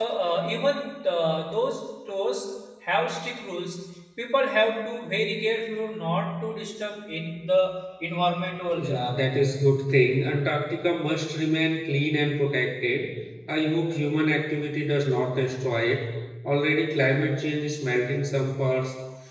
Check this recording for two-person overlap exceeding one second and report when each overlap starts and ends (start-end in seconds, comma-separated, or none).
none